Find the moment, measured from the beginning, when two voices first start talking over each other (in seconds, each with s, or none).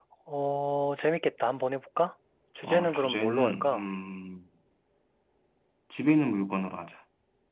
2.6 s